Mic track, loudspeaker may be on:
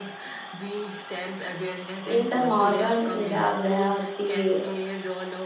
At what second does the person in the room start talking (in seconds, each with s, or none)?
2.0 s